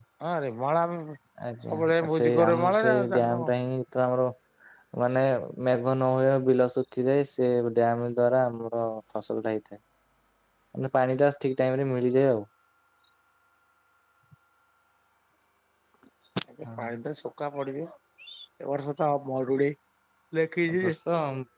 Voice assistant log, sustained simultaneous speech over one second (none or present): present